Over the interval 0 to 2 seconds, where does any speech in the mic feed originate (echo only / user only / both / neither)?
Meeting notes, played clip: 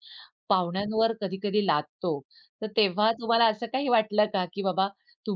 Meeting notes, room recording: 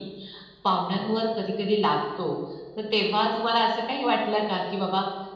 echo only